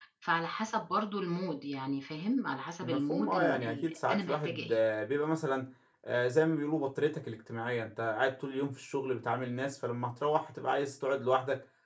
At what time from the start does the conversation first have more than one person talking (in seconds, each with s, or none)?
2.8 s